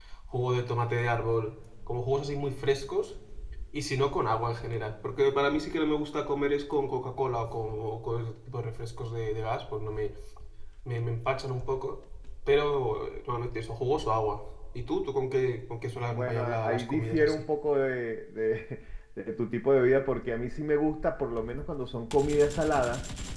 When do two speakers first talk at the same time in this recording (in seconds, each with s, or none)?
16.1 s